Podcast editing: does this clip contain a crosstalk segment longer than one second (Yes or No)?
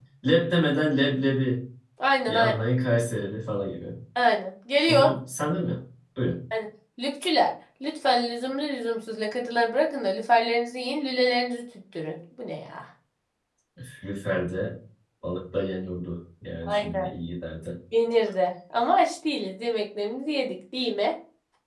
No